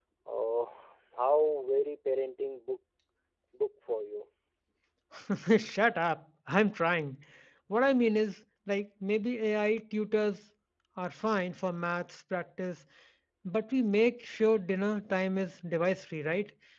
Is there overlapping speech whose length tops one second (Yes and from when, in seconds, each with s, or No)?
No